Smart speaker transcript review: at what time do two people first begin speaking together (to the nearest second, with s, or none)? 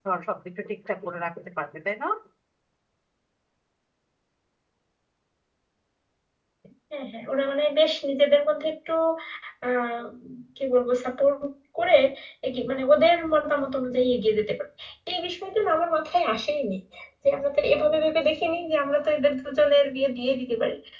none